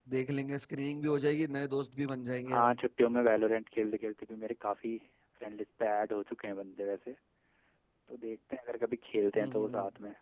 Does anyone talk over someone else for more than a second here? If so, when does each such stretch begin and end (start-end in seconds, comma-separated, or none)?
none